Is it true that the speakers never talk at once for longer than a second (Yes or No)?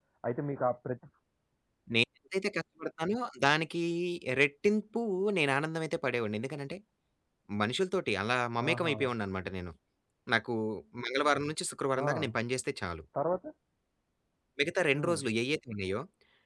Yes